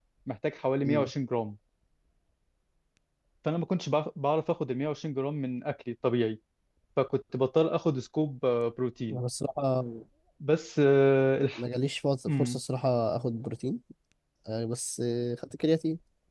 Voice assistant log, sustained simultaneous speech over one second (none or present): none